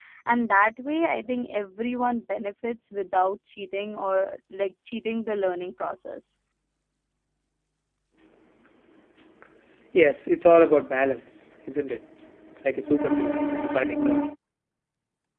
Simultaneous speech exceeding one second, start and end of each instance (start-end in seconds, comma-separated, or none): none